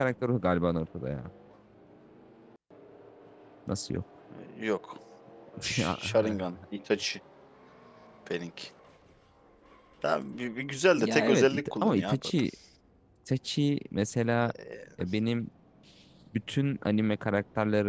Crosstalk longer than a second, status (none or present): present